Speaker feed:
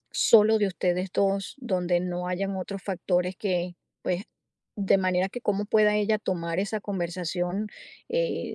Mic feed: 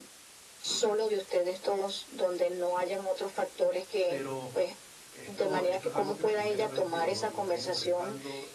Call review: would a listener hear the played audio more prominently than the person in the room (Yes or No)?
Yes